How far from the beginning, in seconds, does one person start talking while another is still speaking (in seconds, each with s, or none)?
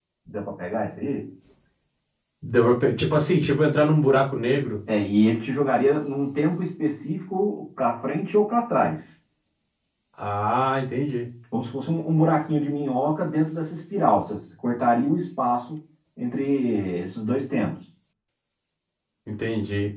none